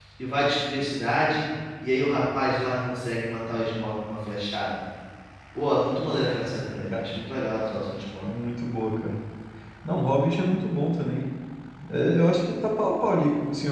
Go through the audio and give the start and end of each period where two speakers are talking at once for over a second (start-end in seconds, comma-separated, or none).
none